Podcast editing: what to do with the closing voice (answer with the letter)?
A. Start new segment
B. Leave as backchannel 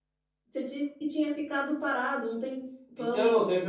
A